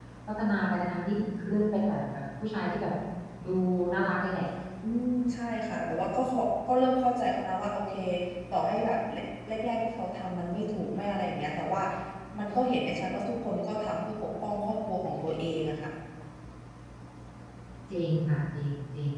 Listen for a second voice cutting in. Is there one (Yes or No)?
No